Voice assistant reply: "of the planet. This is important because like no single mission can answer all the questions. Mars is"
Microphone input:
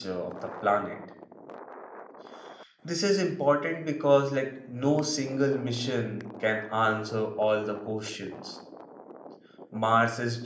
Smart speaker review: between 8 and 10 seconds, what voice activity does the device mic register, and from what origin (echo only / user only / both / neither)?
echo only